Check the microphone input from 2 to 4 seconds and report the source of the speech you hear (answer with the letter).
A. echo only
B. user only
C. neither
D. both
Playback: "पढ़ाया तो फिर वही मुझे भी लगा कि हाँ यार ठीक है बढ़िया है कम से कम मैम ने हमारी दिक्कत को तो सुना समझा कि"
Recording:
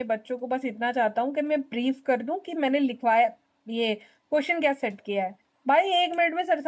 B